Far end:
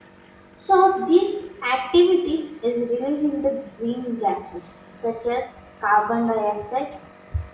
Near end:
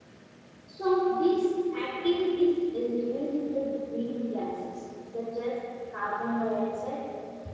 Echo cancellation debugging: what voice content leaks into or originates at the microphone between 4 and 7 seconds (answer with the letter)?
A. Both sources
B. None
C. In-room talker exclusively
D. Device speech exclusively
D